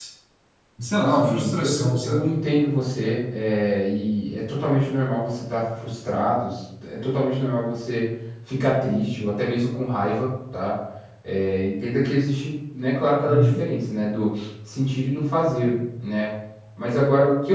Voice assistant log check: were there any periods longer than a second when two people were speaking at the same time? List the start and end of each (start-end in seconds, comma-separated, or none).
1.1-2.3